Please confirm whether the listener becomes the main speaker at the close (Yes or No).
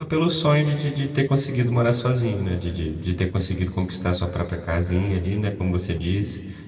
No